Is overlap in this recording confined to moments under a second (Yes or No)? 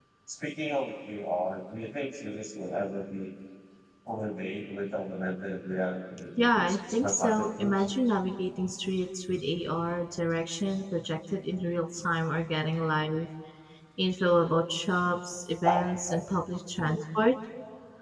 No